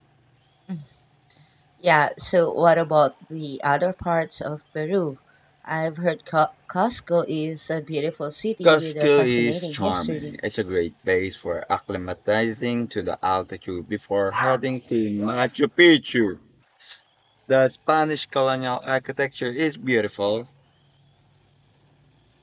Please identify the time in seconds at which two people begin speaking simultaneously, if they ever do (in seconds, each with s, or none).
8.6 s